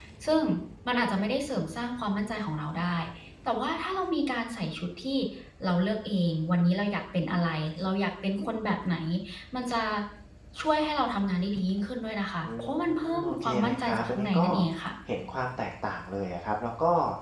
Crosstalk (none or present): present